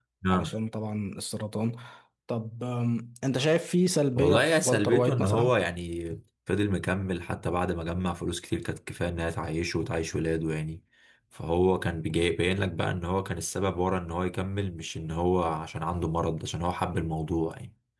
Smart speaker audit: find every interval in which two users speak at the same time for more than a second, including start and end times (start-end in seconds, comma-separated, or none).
4.2-5.5